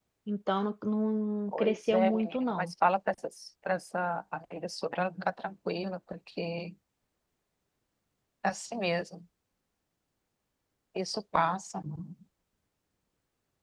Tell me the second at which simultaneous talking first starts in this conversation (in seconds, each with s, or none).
1.5 s